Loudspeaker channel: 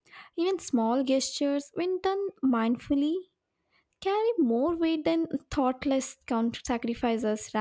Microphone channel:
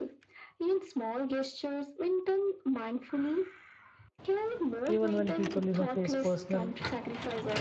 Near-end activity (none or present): present